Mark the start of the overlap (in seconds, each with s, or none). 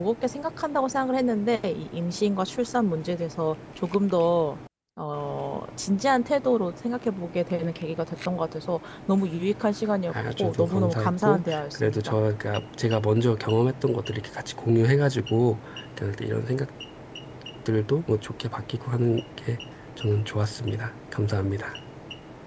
10.1 s